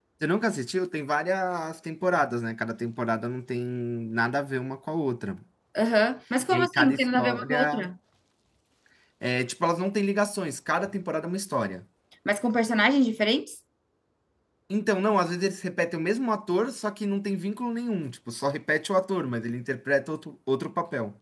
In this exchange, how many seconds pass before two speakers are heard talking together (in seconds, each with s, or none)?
6.5 s